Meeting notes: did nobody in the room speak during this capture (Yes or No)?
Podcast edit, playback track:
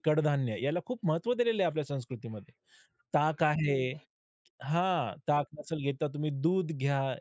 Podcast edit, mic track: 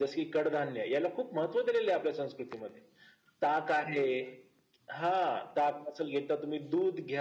Yes